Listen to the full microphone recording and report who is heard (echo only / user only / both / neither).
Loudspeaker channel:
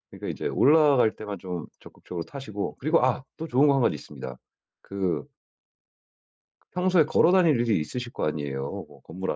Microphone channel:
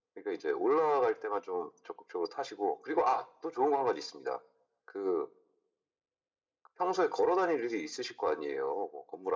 echo only